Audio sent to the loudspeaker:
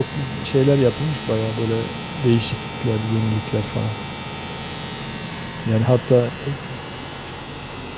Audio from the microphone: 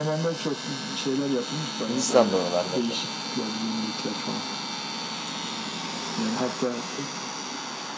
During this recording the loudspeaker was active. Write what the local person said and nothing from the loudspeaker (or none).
Hindistan da oralardaydı.